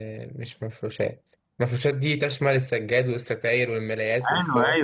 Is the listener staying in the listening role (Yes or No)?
No